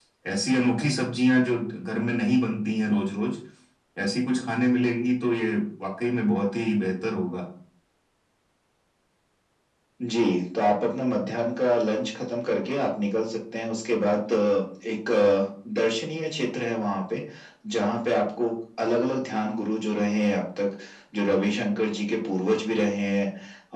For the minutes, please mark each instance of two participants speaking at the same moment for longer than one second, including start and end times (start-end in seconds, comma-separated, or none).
none